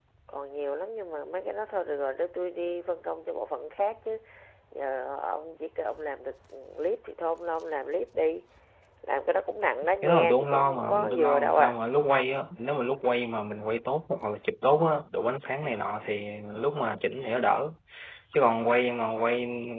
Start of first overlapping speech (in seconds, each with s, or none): 10.0 s